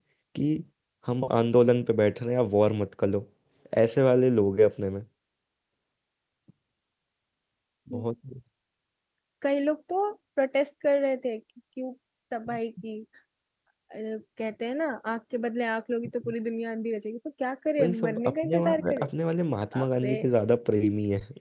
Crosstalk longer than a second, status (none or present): present